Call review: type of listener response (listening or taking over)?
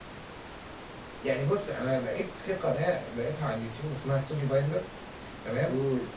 listening